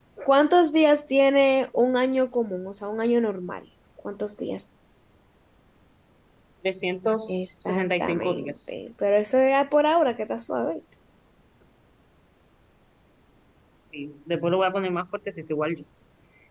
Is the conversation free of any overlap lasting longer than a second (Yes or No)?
No